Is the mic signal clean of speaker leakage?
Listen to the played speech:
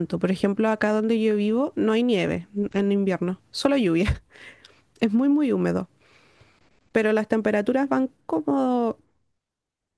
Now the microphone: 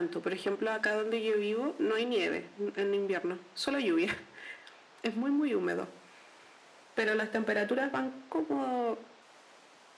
No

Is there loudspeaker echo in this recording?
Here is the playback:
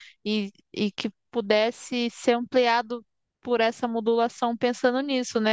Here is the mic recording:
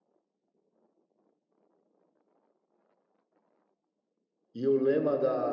No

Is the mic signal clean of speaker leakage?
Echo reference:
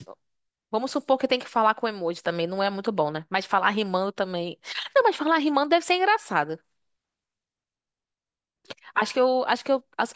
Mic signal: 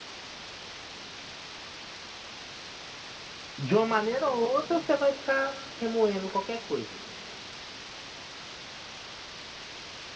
Yes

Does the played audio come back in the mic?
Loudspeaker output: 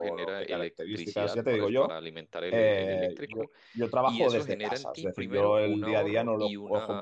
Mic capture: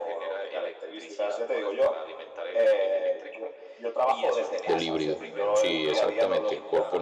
Yes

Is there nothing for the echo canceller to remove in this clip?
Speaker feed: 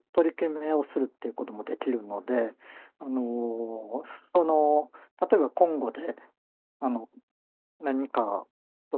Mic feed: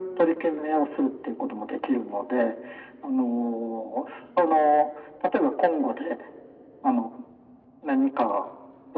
No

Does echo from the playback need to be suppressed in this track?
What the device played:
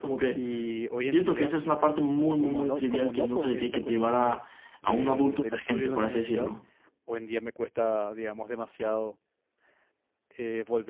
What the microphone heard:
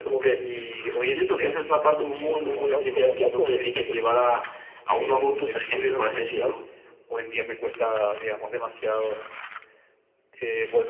Yes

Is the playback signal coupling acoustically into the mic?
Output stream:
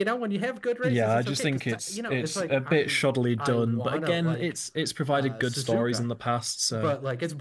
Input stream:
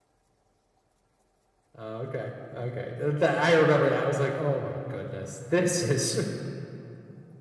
No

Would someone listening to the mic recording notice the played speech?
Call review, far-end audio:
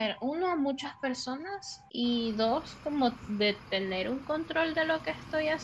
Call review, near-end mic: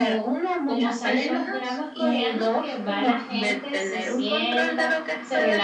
Yes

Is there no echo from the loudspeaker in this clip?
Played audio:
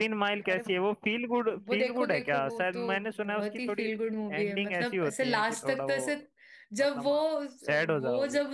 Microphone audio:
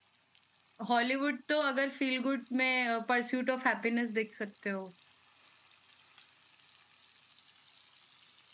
Yes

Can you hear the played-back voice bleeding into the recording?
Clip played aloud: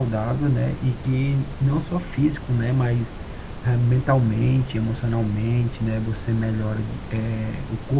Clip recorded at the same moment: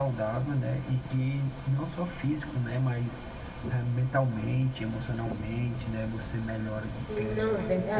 Yes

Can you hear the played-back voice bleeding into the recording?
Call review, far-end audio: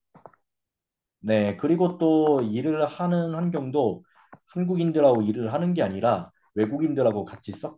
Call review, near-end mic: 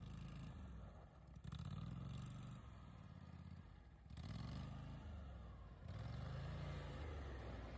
No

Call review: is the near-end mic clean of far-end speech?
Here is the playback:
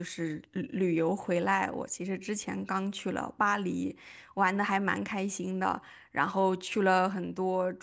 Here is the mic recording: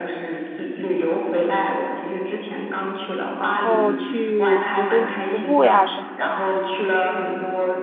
No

